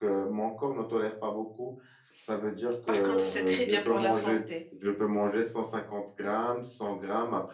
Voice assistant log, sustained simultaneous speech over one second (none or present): present